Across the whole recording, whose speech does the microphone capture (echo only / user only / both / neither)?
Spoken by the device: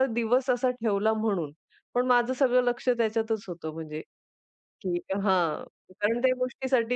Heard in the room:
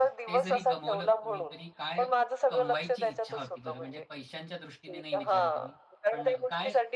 both